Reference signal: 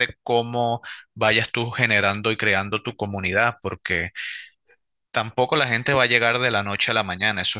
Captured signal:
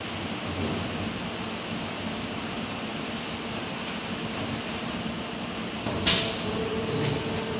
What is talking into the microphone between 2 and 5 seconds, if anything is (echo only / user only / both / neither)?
neither